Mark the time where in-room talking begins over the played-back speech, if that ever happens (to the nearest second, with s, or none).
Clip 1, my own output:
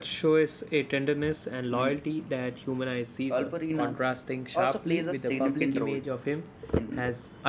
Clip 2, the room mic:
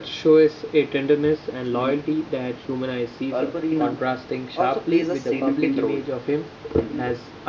none